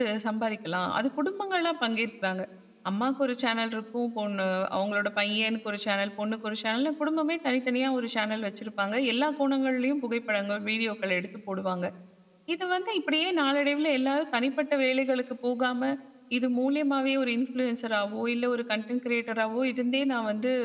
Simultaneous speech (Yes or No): No